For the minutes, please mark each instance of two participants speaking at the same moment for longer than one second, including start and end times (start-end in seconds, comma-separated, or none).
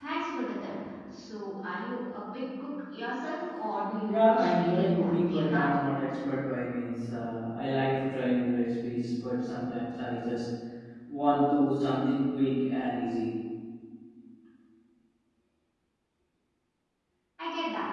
4.1-5.7